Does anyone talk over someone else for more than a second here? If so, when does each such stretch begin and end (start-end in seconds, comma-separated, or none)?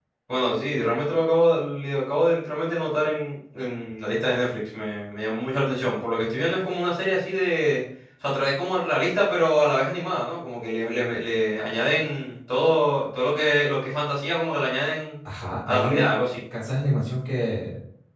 none